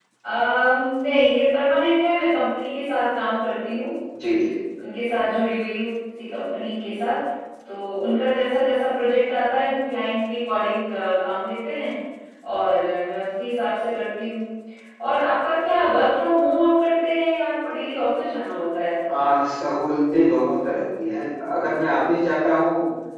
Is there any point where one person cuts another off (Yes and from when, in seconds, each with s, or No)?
No